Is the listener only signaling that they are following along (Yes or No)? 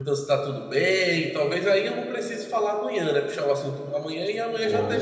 No